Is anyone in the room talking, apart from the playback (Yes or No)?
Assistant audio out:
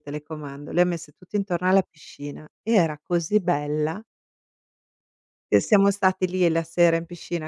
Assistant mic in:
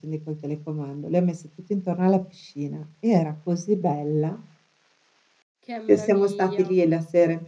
Yes